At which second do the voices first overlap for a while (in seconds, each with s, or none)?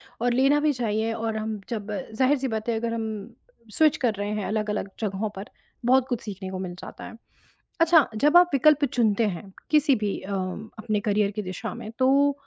none